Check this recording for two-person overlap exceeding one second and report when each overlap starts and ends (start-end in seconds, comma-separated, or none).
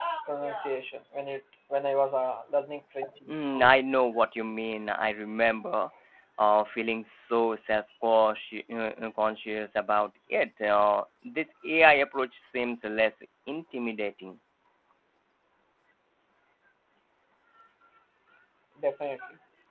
none